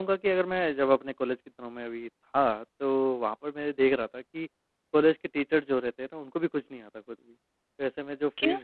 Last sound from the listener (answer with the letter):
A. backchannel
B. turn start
A